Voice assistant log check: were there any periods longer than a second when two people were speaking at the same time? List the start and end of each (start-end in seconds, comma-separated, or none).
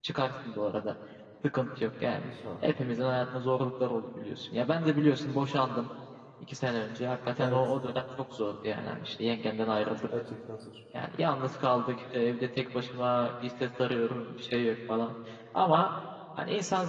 none